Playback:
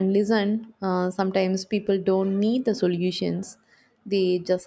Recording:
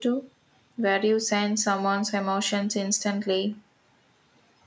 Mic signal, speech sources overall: user only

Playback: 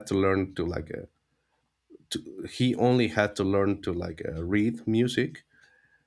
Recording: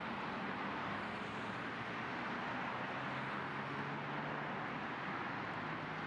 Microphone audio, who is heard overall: neither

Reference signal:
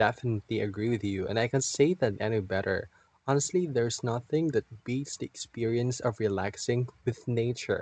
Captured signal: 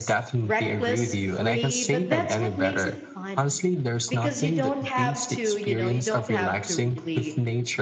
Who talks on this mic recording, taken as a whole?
both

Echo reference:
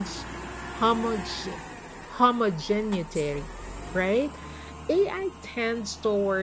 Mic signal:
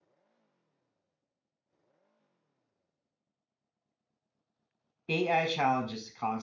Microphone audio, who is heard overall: user only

